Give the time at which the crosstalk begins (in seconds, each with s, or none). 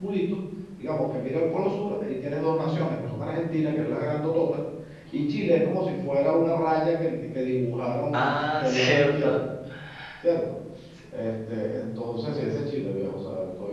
8.1 s